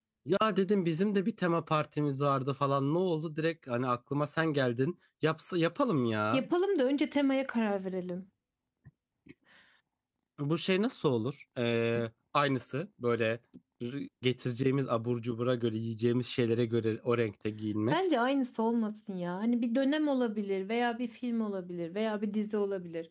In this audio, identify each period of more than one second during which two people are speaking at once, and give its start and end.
none

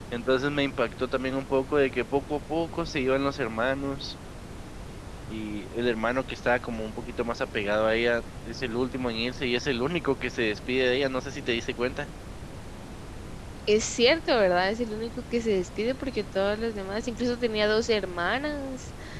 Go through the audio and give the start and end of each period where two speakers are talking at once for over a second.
none

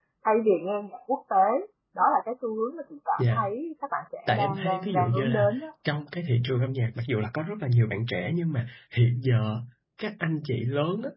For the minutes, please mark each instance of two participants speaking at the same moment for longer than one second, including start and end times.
4.3-5.5

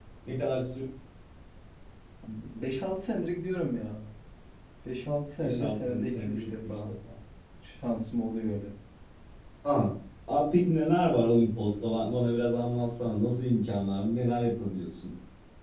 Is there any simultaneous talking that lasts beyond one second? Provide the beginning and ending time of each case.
5.4-6.9

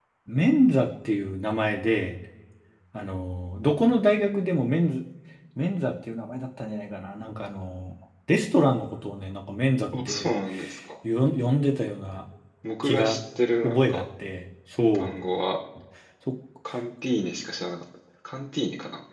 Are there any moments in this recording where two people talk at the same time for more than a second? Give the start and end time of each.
none

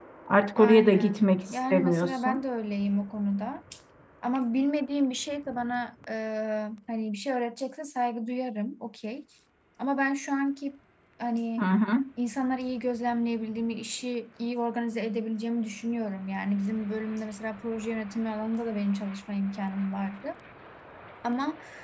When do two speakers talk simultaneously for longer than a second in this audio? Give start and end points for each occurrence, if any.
0.6-2.4

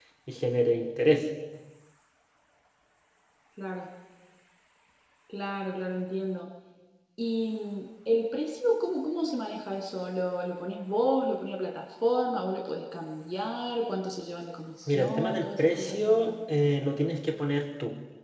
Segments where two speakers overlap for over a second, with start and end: 14.9-16.3

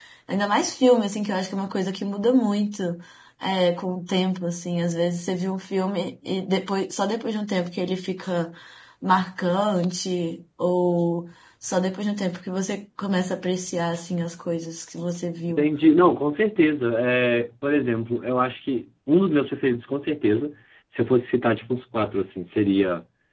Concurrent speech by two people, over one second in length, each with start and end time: none

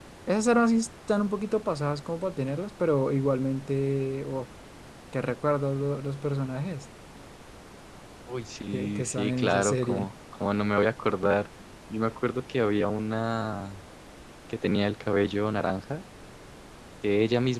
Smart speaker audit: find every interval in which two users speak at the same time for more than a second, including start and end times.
8.7-10.1

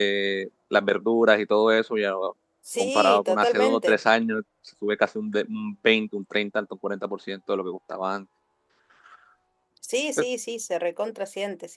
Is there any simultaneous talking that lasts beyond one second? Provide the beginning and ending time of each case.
2.8-4.0

